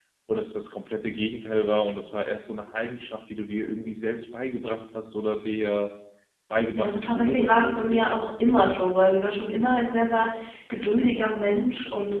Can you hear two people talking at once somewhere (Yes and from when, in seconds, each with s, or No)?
Yes, from 6.8 s